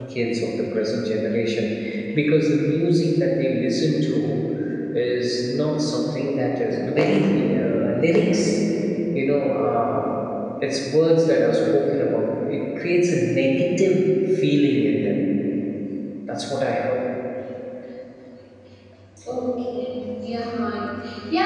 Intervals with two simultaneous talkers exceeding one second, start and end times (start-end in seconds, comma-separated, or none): none